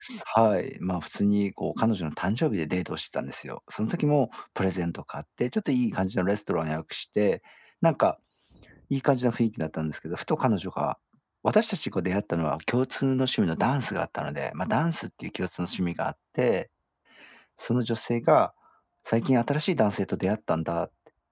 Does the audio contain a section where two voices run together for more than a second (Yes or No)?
No